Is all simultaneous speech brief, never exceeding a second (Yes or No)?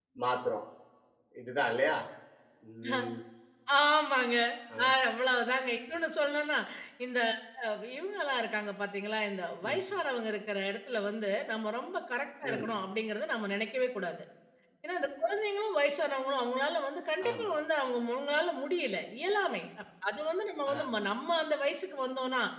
Yes